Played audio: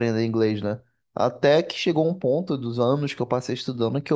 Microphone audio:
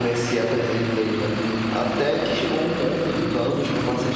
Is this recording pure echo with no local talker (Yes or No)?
Yes